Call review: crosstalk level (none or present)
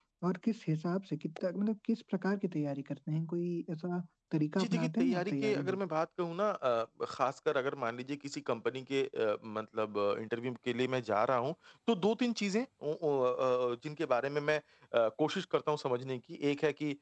present